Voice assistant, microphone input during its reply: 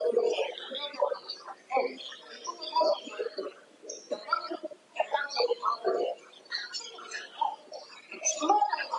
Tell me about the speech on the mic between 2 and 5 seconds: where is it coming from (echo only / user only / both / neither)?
echo only